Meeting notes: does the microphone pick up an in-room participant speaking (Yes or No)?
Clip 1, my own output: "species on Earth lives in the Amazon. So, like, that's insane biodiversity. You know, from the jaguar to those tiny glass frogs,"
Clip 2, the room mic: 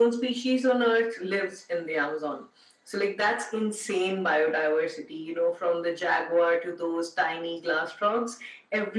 No